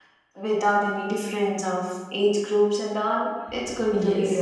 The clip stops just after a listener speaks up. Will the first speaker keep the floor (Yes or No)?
No